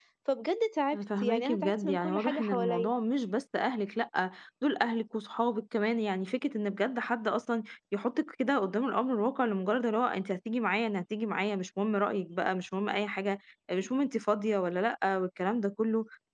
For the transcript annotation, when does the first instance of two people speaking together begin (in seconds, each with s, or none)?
0.9 s